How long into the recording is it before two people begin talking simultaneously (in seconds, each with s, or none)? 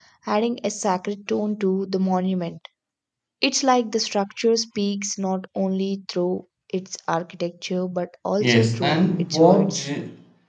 8.4 s